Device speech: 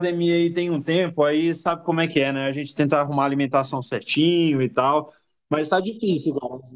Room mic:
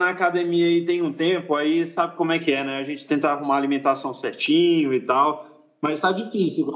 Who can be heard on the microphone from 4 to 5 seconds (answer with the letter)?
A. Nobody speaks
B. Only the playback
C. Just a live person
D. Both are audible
B